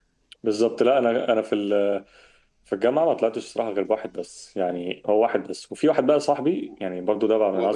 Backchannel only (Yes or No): No